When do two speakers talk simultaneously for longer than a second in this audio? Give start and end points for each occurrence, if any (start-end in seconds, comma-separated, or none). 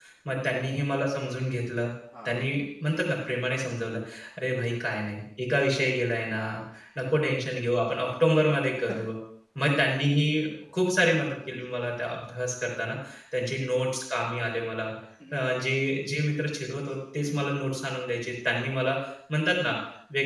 none